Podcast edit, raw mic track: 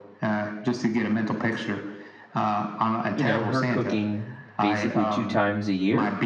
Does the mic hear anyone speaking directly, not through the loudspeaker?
Yes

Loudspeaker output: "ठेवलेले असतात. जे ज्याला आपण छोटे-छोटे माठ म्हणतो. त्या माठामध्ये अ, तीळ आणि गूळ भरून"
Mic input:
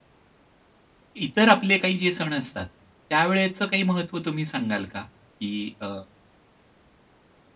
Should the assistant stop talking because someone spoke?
Yes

